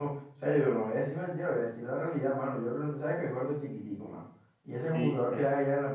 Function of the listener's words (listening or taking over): listening